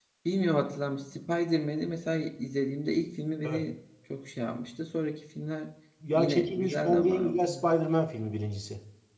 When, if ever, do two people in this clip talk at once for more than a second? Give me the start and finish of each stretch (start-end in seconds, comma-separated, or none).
6.1-7.4